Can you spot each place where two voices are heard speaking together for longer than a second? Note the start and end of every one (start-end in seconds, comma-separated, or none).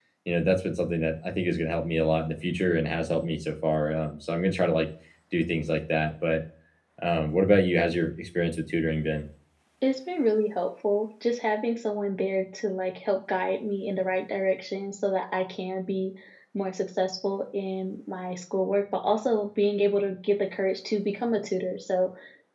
none